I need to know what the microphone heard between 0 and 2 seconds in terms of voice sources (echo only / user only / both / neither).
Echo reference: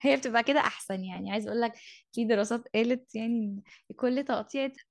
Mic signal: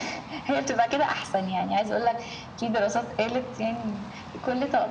echo only